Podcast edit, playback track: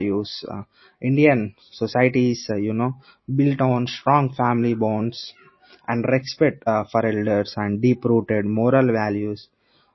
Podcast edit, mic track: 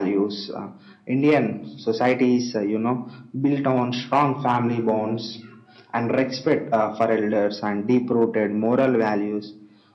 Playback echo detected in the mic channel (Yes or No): Yes